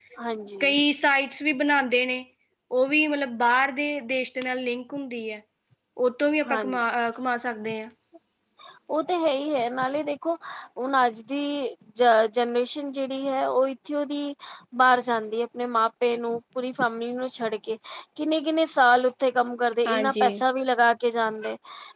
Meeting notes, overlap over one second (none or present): none